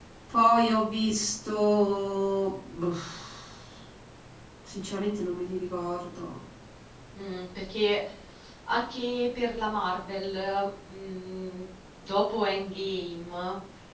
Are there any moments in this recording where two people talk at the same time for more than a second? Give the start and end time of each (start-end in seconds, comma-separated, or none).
none